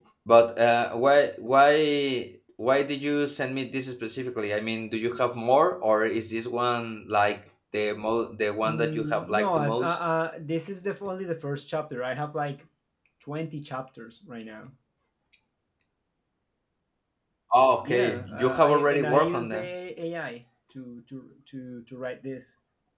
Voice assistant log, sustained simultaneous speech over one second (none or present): present